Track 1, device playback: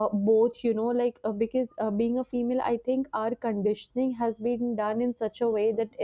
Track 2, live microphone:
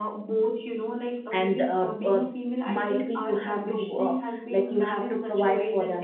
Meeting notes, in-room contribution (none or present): present